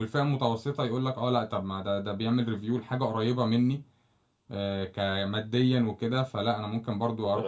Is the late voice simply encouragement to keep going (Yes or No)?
No